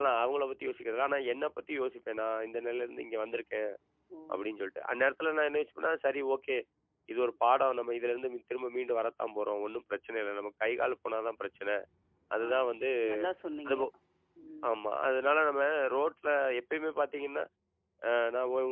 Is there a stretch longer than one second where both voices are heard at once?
No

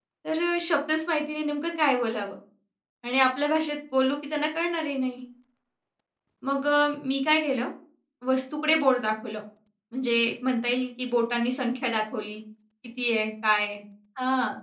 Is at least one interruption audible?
No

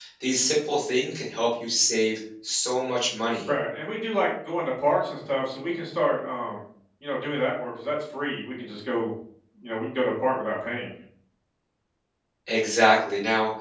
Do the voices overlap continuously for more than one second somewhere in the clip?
No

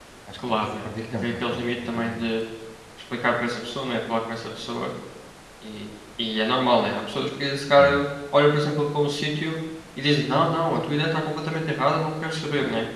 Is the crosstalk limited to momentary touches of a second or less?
No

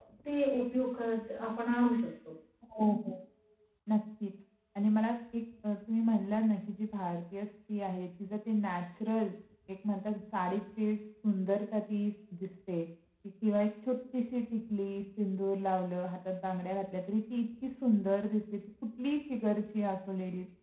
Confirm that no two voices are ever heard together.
Yes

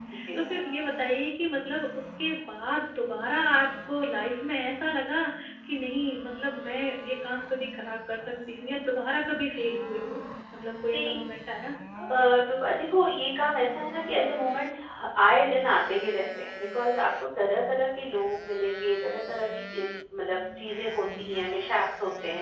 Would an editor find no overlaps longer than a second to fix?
Yes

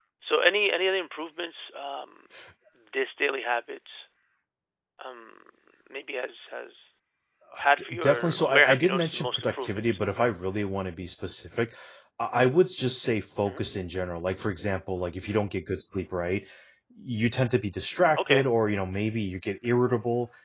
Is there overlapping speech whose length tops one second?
Yes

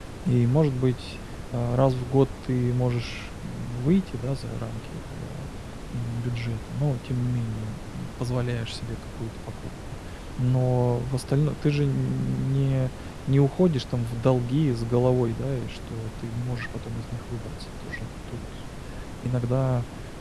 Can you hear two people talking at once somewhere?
No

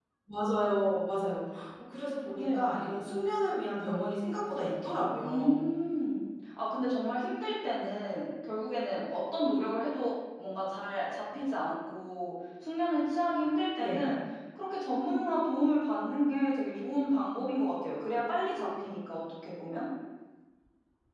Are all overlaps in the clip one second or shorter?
Yes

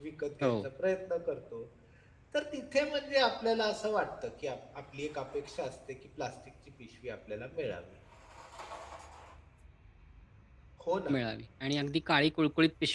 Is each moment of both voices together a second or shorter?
Yes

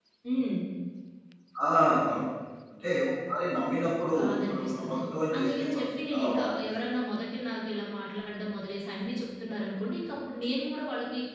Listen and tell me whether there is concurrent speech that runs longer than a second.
Yes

